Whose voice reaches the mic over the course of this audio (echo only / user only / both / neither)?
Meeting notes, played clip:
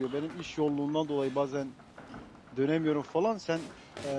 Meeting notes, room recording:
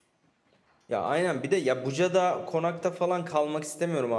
user only